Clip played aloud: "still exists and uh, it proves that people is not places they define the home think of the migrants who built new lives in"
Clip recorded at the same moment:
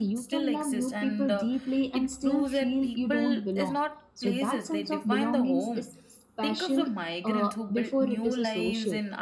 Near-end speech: present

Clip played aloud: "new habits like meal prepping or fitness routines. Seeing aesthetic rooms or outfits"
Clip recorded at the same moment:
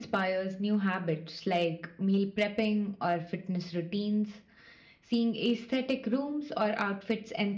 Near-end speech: none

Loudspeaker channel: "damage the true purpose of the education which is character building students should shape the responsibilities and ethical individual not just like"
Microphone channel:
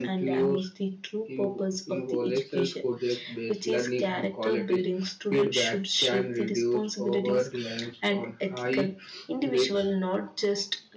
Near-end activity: present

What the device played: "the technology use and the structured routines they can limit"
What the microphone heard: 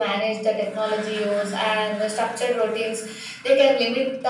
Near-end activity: none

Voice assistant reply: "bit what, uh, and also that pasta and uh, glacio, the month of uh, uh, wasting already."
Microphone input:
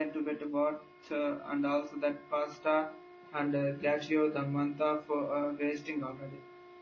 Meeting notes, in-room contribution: none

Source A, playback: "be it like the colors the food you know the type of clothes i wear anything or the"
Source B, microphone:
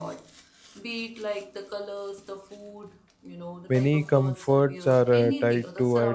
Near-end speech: present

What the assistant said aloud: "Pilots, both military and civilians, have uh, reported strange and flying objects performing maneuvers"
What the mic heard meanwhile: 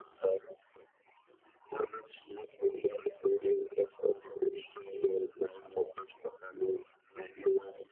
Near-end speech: none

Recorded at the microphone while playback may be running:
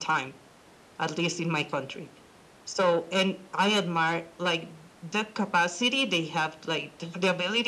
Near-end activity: none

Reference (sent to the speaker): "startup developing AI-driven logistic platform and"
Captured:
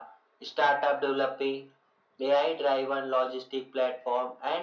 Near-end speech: none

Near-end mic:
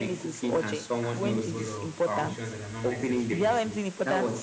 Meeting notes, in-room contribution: present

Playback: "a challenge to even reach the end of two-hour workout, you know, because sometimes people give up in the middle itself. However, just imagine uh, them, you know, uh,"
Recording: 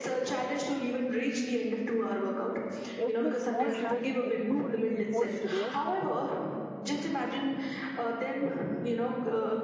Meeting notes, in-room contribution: present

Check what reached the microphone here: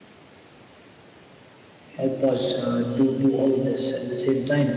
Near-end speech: present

